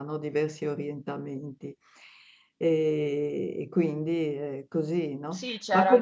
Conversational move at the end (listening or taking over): taking over